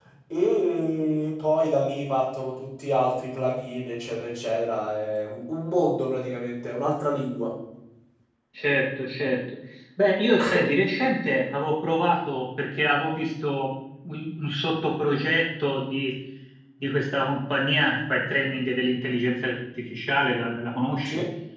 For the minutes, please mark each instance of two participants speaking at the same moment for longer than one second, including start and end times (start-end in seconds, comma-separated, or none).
none